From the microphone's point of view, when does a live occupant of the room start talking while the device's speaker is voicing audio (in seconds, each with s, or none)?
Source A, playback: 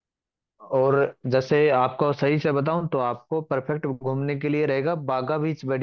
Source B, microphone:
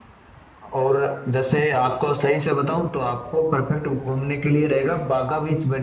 none